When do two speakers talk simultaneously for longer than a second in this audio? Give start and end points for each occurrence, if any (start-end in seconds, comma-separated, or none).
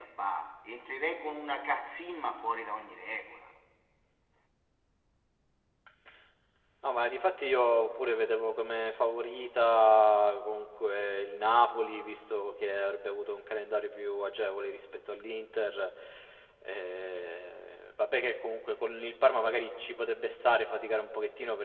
none